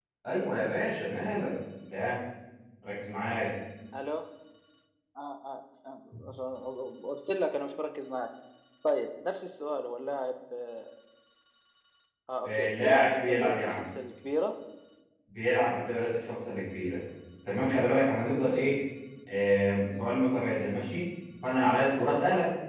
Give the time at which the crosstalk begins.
12.4 s

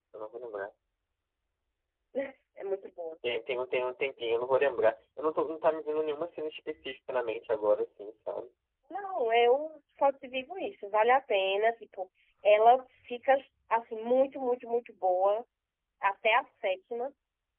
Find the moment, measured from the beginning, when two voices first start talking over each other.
none

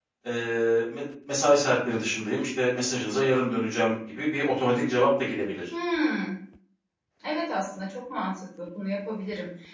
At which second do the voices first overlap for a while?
none

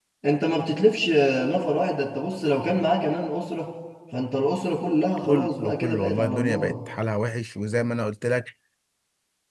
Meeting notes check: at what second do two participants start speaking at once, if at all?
5.2 s

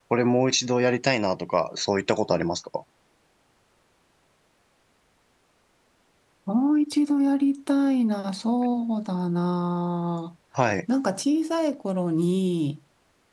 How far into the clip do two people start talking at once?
none

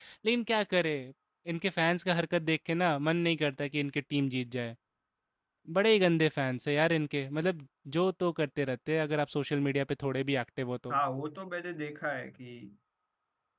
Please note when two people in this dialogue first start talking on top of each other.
none

